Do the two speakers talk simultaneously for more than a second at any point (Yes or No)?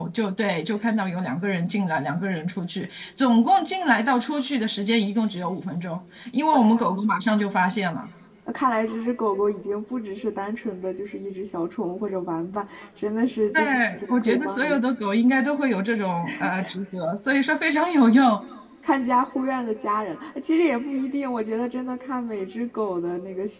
Yes